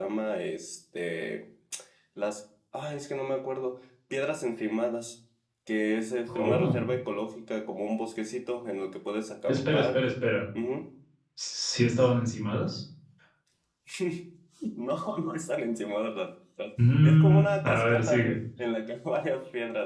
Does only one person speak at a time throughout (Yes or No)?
No